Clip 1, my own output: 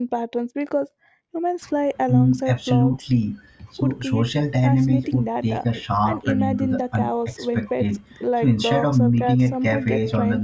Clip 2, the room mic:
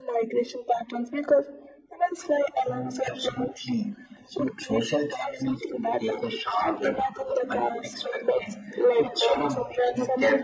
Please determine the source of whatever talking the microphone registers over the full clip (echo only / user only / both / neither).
echo only